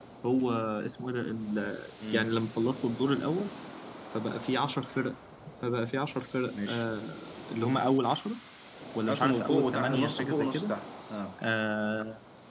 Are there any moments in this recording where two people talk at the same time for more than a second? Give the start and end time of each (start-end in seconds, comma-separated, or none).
9.1-10.7